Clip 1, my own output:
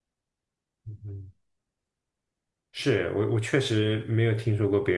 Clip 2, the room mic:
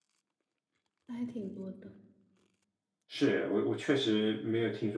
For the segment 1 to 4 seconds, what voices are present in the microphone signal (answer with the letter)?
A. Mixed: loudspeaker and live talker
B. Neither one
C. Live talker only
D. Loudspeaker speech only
A